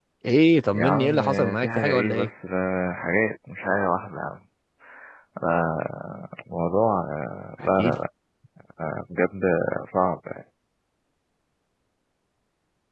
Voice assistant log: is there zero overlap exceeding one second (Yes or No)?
No